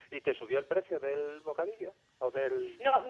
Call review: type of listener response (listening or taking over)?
taking over